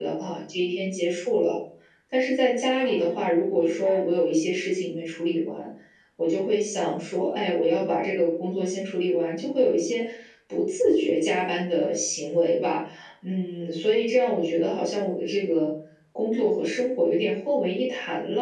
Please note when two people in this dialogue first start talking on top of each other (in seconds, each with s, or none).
2.8 s